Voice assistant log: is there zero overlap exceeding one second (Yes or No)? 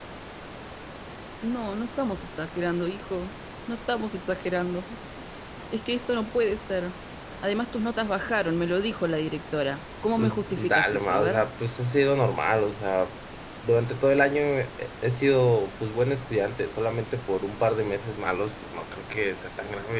No